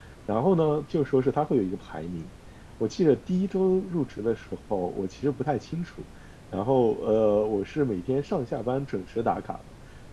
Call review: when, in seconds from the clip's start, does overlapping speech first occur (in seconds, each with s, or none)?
none